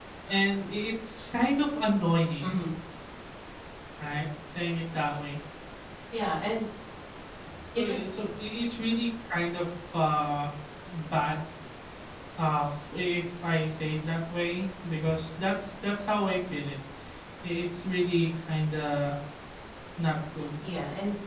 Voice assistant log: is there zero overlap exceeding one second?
Yes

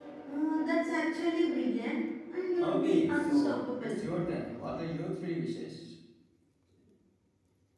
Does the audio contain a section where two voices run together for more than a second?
Yes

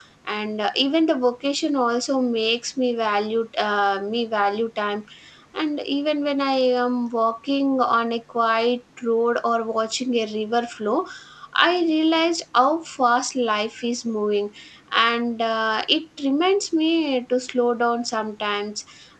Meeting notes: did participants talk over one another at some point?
No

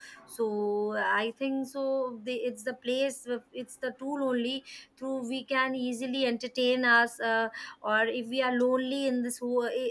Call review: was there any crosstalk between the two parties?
No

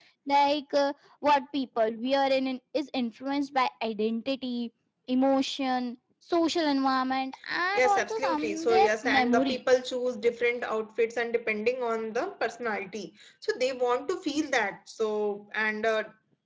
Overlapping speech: Yes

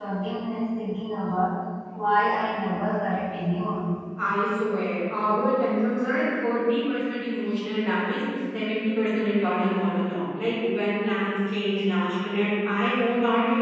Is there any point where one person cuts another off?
No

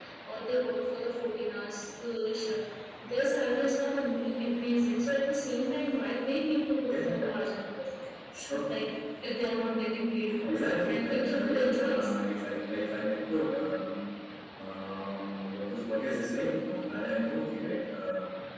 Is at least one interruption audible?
Yes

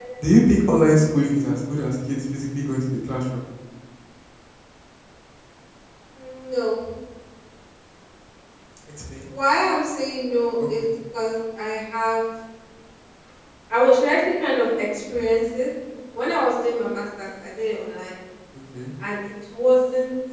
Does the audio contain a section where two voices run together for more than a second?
No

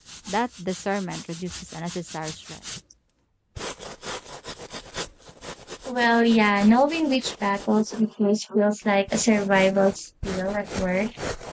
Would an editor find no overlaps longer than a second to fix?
Yes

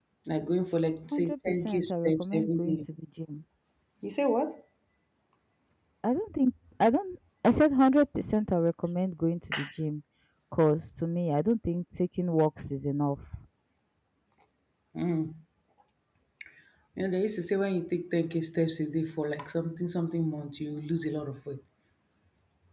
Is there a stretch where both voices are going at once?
Yes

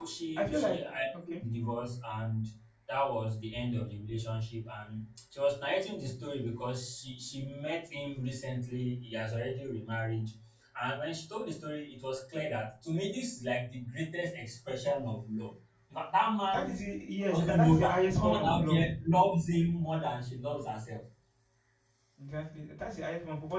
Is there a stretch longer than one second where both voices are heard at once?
Yes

